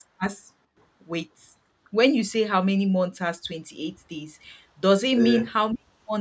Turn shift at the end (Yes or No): No